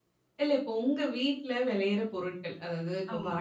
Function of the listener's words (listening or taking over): listening